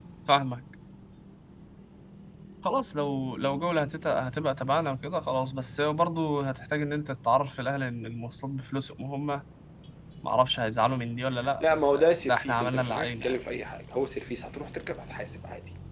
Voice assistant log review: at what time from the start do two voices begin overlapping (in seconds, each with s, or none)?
11.6 s